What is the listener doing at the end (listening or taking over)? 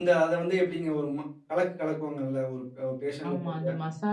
taking over